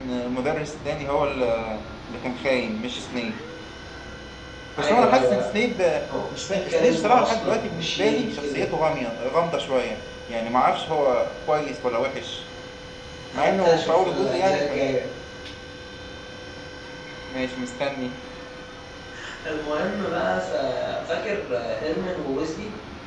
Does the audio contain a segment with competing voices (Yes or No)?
Yes